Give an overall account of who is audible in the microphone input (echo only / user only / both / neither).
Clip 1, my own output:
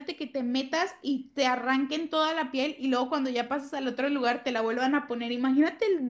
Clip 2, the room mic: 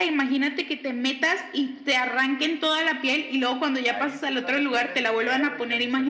both